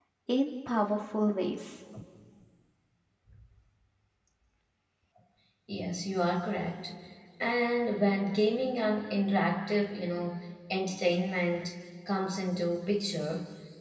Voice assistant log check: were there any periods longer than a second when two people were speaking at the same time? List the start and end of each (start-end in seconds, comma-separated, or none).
none